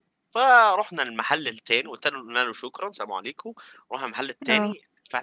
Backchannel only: Yes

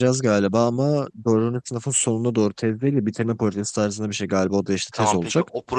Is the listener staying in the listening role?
No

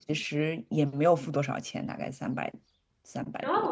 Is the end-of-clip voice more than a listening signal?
Yes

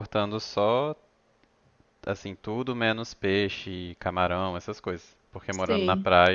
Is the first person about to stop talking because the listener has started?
No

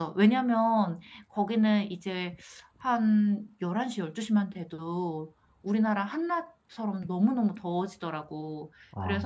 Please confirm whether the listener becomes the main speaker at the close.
No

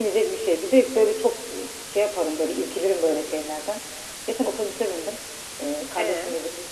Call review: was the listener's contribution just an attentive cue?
Yes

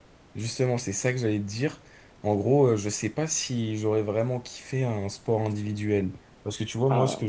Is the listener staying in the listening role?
Yes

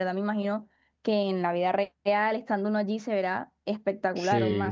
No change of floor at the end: No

